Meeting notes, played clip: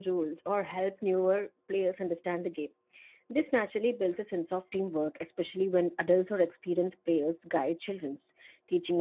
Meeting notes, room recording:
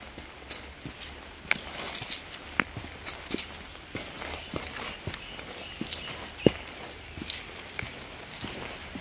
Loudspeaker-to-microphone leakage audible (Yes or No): No